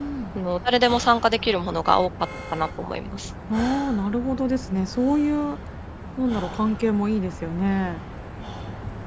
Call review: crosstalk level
none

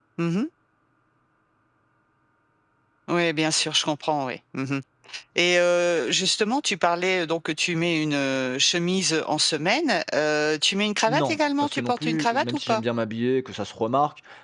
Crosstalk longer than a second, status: present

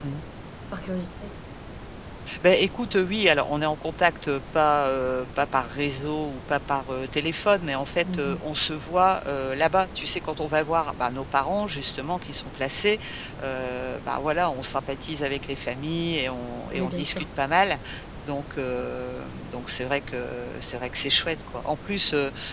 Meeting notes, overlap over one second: none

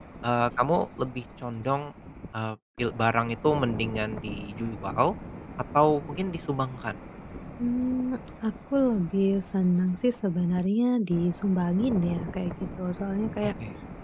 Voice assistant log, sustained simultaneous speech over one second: none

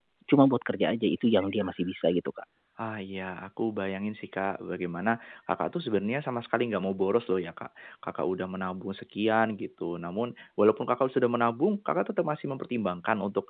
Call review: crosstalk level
none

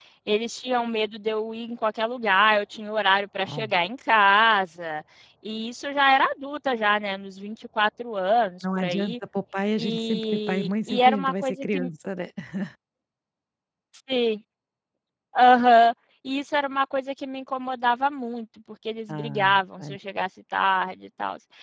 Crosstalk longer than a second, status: present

